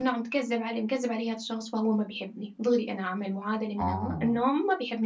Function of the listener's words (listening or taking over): listening